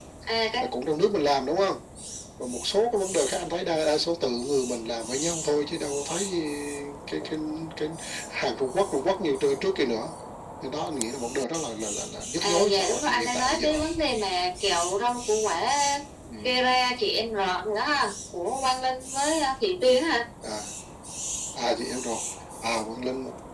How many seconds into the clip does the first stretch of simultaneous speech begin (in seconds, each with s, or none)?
12.4 s